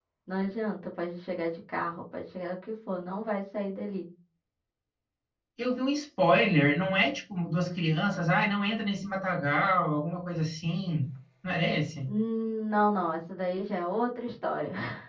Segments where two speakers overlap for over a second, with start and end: none

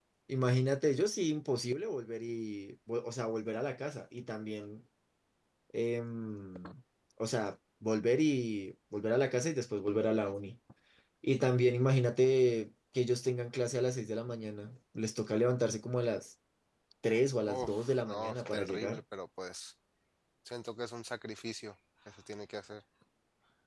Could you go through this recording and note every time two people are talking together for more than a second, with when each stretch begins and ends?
17.6-19.0

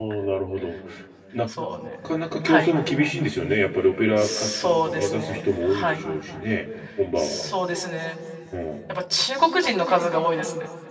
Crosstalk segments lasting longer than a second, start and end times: 4.2-6.0

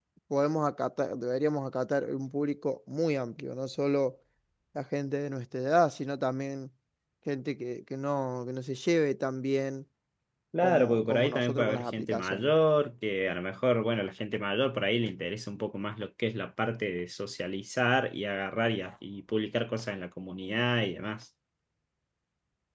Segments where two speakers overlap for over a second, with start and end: 10.6-12.5

